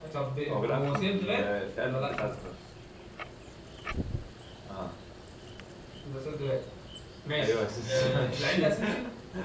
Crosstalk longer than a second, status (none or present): present